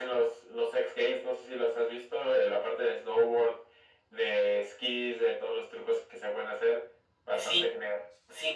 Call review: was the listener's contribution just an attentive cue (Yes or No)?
No